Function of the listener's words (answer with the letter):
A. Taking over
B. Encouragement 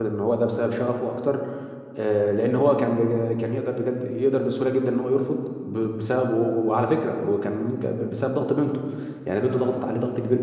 B